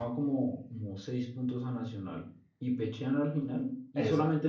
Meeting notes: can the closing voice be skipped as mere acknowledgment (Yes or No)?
Yes